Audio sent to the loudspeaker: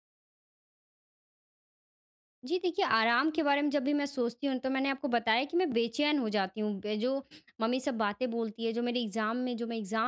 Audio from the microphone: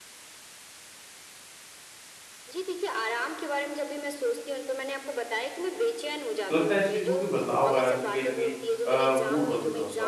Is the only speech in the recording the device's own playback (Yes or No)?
No